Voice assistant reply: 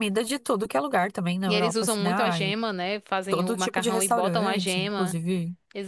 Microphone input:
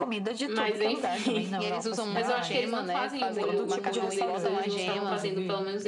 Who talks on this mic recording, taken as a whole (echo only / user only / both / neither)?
both